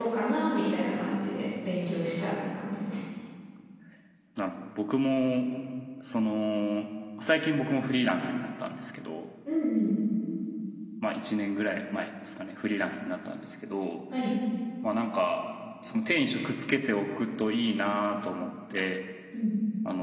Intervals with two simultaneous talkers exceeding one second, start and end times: none

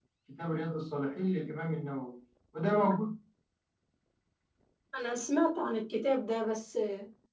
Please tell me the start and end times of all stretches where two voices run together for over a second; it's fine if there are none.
none

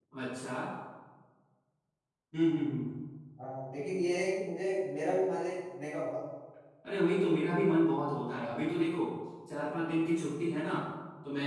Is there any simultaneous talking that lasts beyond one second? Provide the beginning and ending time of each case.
none

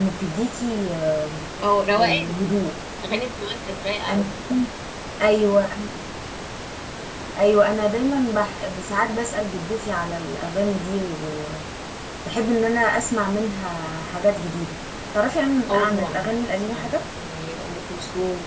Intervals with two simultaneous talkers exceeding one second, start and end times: 15.7-16.9

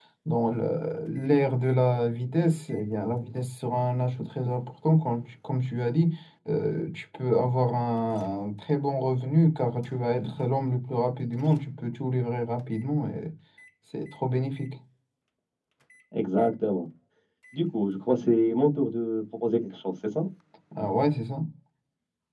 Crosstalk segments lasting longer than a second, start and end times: none

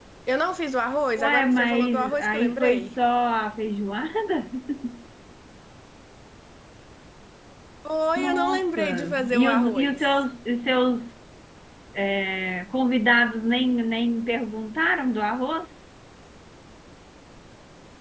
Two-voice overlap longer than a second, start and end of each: 1.1-2.9, 8.2-10.1

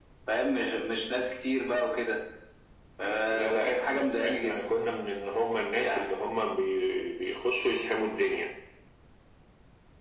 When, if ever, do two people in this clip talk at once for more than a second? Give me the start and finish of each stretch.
3.3-4.6

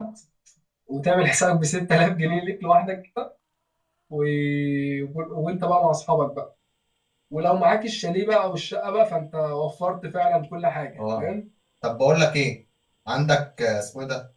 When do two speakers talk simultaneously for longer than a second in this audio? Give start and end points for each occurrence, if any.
none

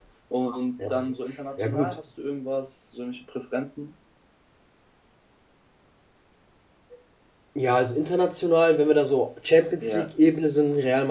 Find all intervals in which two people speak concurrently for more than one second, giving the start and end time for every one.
none

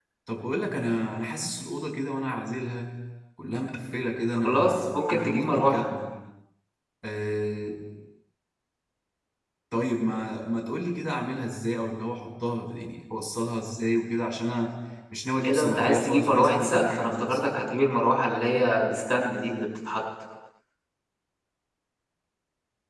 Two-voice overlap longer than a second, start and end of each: 4.3-5.9, 15.4-17.5

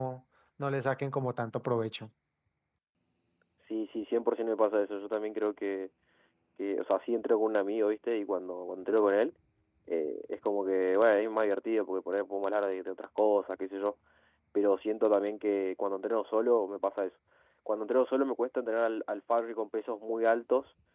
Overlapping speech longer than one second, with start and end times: none

